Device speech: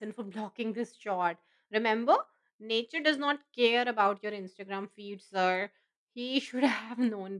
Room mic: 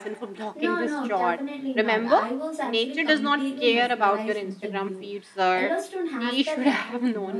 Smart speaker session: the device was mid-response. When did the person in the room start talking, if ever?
1 s

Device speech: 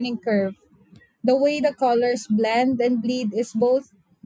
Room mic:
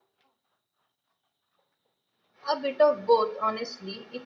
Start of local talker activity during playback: 2 s

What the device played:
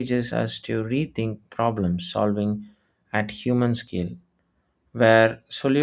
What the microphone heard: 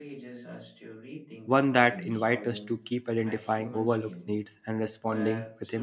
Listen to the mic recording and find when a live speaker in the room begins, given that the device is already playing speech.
1 s

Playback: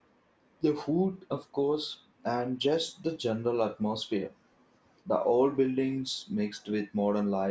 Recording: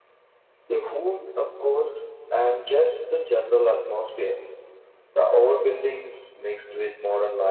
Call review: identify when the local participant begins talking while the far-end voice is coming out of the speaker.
none

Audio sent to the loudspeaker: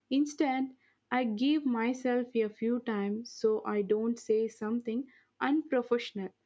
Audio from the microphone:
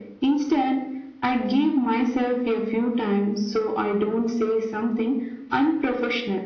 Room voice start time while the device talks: none

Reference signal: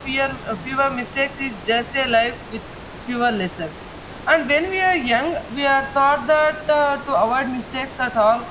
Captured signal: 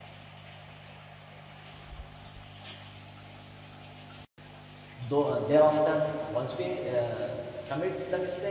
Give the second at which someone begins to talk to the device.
5 s

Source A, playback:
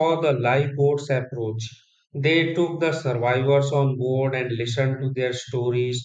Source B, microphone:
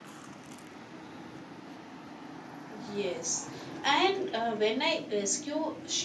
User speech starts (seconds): 3 s

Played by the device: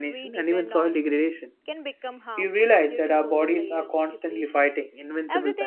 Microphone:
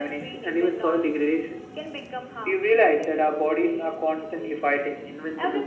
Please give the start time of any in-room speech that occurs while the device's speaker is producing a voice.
none

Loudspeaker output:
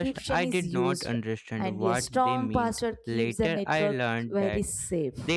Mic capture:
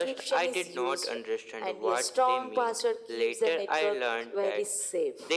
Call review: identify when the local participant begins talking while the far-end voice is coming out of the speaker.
none

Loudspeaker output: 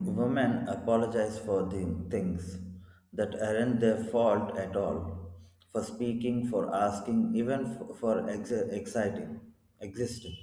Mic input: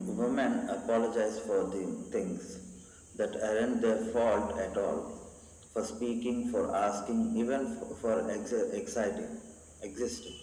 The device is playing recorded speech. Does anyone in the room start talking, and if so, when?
none

